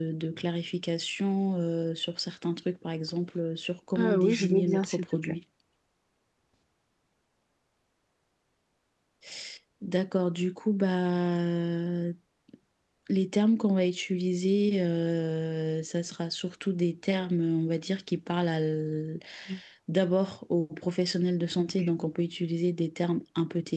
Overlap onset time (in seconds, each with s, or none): 4.0 s